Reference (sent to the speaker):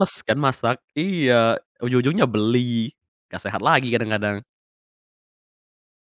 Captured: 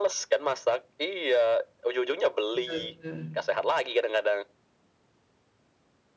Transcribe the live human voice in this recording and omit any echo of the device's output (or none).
betul betul.